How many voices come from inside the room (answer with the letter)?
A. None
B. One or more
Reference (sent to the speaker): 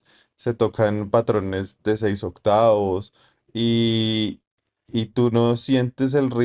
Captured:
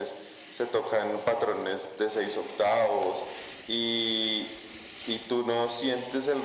A